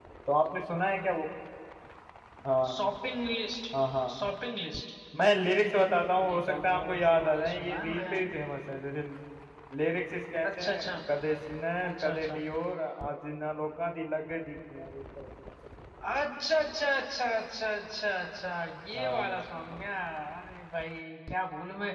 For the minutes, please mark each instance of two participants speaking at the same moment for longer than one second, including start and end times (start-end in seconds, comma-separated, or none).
6.2-8.0